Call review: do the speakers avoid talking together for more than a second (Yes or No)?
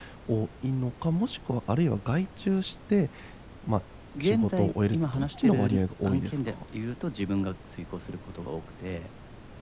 No